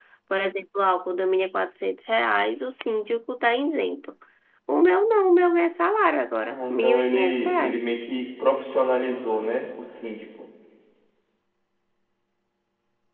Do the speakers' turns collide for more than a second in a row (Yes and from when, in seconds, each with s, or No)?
Yes, from 6.5 s